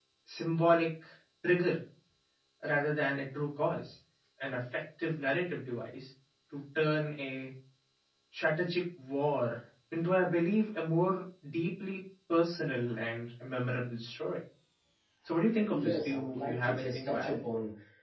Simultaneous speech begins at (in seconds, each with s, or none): 15.6 s